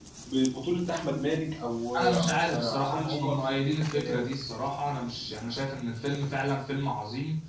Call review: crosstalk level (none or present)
present